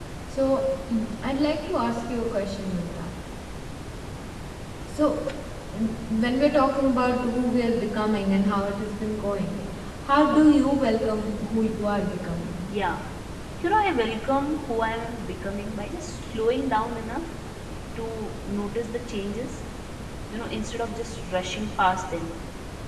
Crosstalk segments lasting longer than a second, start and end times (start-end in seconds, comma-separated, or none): none